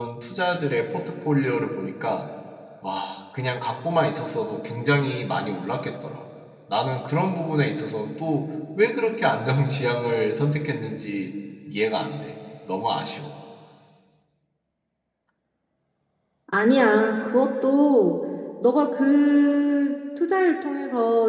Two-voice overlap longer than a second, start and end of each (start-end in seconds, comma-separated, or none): none